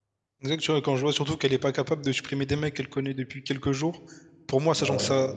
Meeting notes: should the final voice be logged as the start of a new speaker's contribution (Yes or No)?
No